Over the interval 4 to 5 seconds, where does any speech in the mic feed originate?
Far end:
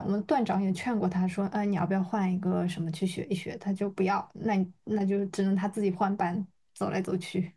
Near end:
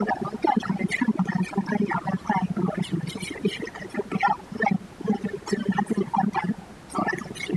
echo only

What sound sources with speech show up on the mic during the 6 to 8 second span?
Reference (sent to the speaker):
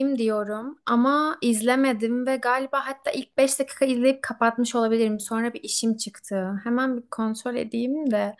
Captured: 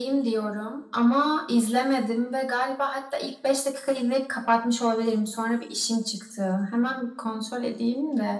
echo only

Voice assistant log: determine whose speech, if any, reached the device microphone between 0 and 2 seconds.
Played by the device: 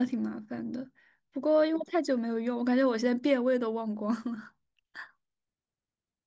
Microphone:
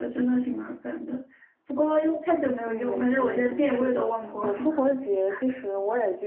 echo only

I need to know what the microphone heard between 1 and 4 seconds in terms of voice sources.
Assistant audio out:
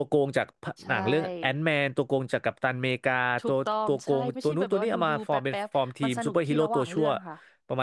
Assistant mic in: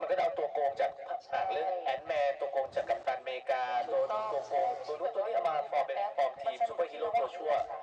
echo only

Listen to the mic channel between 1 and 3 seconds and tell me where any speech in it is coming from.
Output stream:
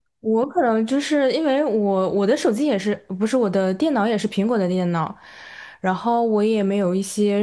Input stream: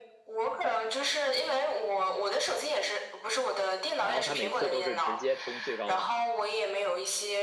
echo only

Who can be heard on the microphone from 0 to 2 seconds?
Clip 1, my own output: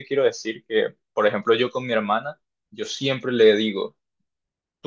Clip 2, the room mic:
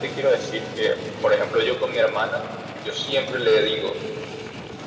echo only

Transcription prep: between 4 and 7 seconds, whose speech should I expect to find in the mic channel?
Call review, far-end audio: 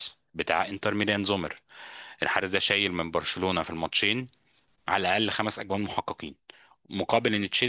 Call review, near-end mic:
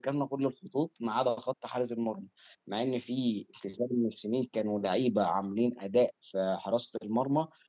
user only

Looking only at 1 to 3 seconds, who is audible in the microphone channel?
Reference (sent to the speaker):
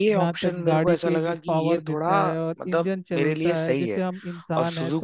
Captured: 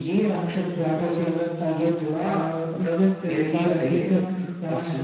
echo only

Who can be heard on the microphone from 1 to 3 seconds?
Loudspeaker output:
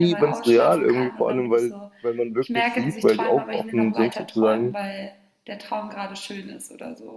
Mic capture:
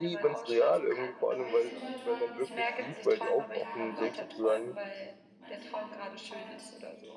both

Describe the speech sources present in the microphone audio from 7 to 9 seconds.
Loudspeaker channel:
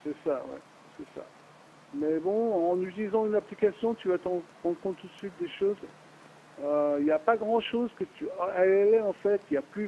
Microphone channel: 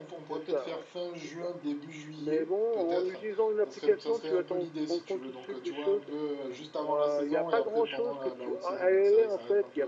both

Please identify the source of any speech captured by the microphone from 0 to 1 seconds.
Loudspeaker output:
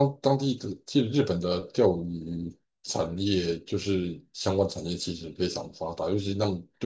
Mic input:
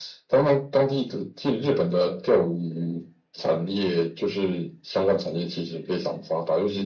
echo only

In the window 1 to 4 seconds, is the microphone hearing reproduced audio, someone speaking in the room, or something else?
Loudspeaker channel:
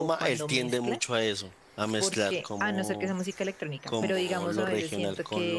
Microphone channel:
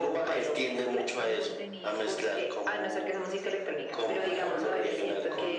both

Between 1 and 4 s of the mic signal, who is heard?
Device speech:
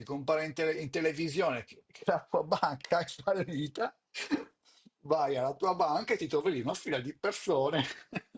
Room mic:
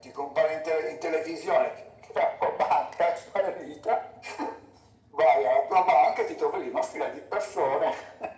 echo only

